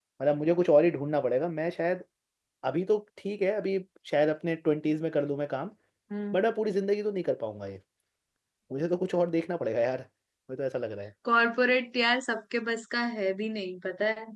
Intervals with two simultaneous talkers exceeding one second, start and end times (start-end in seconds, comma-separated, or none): none